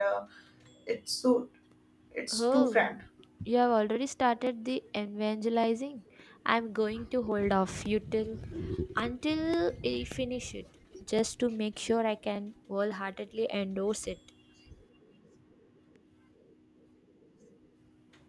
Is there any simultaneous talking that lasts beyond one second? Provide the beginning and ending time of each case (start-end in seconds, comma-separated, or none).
none